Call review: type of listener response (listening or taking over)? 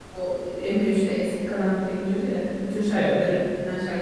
listening